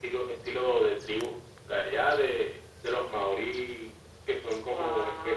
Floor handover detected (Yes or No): No